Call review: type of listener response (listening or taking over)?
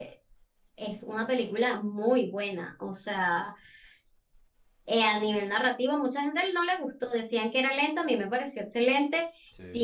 listening